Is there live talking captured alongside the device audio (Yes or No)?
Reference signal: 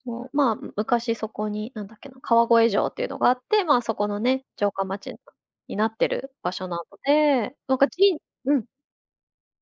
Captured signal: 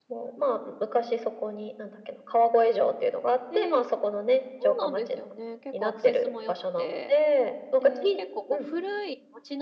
Yes